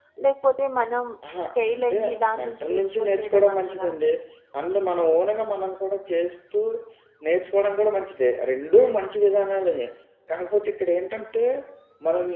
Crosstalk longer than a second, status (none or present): present